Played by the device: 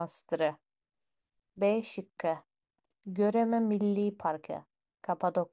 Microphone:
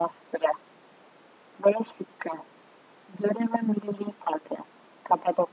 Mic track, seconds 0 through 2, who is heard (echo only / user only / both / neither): echo only